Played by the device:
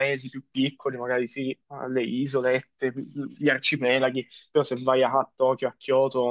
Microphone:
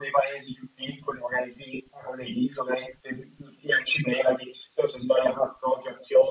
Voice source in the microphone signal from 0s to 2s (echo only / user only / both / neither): echo only